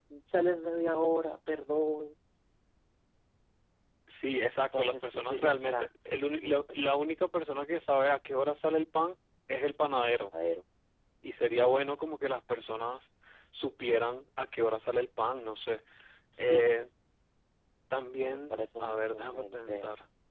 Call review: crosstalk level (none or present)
present